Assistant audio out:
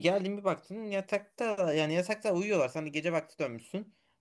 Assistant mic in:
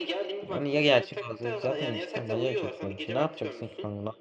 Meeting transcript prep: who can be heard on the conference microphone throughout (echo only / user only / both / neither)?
both